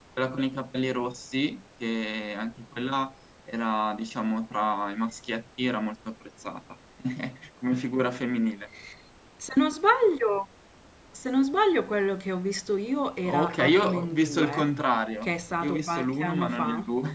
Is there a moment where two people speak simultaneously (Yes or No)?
Yes